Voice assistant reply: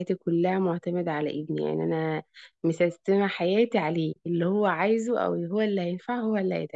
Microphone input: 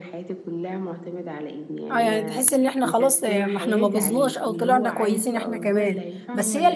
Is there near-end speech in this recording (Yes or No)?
Yes